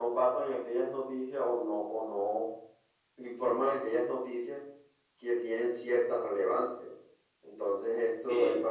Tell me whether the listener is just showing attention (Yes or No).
Yes